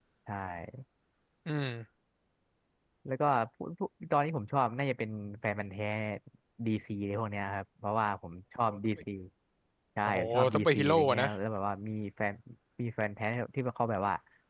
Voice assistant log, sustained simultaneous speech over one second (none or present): present